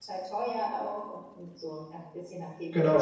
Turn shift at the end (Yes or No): Yes